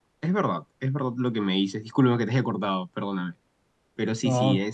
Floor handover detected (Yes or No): No